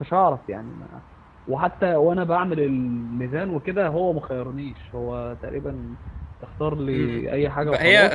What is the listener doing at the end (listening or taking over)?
taking over